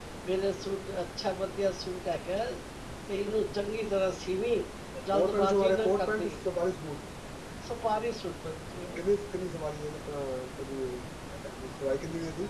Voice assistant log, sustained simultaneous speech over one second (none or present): present